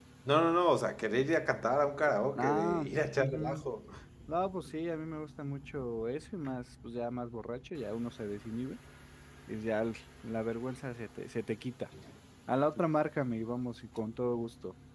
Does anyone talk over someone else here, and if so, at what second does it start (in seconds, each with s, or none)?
2.4 s